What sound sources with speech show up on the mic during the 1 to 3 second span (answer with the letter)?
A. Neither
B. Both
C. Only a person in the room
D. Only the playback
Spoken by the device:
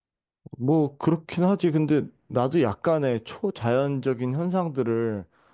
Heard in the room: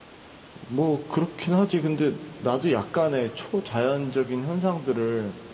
D